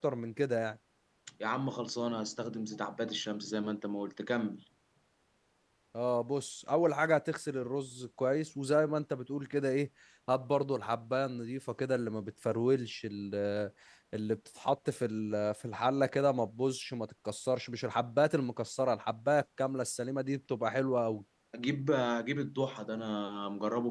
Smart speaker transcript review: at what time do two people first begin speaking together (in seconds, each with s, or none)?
none